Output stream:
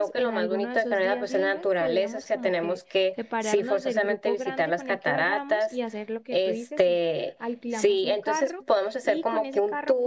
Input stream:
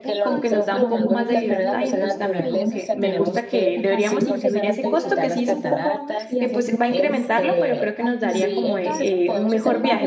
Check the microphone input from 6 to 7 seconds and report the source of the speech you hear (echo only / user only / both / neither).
both